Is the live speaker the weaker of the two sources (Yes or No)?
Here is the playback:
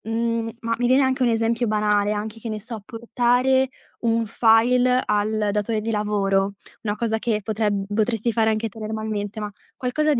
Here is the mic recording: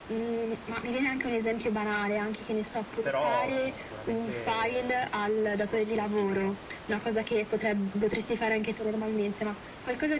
Yes